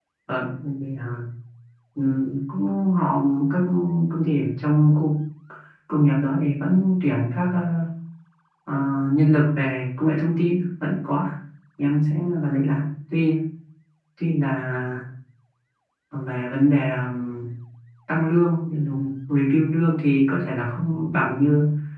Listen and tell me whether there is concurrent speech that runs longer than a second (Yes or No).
No